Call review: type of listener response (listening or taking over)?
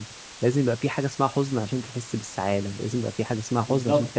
taking over